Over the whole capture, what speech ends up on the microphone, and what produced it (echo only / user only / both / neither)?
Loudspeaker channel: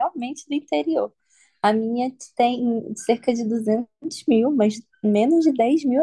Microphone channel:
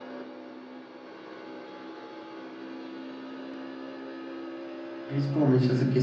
user only